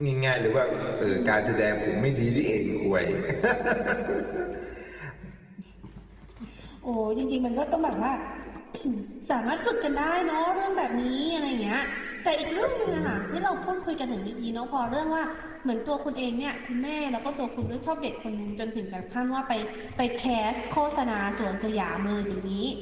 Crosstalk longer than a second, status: none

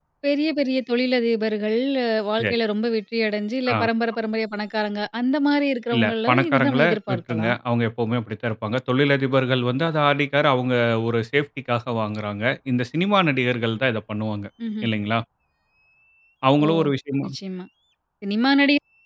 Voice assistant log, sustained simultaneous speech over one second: present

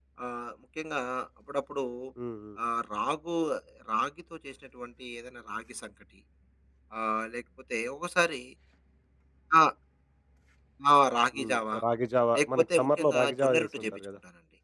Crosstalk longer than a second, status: present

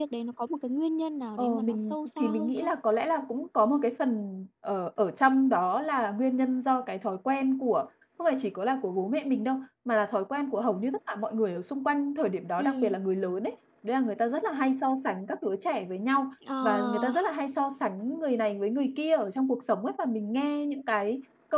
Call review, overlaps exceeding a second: present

